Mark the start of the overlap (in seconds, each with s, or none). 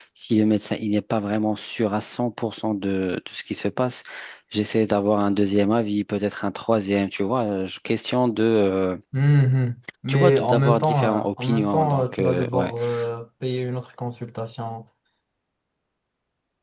10.1 s